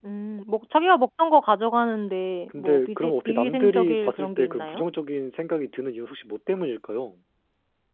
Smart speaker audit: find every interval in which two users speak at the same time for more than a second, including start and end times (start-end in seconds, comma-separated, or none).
2.5-4.8